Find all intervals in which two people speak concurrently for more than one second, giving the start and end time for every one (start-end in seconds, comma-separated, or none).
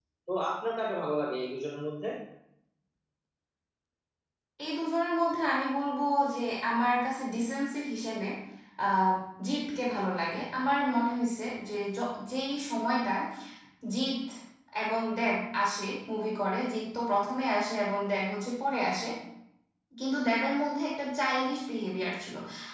none